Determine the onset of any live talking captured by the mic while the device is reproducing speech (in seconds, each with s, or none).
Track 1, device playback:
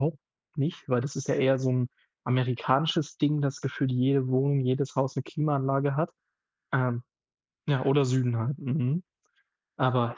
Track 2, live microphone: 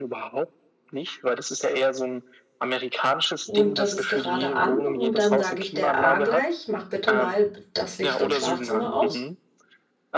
3.4 s